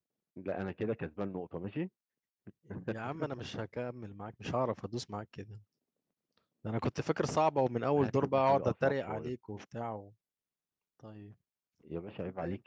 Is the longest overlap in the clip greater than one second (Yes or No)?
Yes